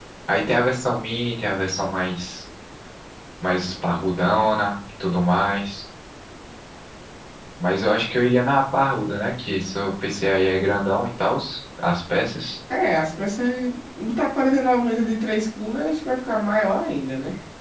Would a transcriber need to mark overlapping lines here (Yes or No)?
No